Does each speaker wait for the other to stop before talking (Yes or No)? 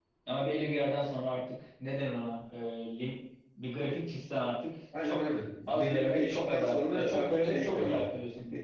No